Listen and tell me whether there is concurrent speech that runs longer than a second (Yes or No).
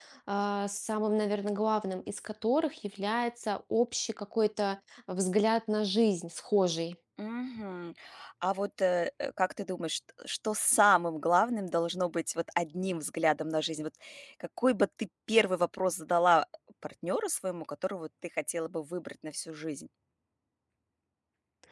No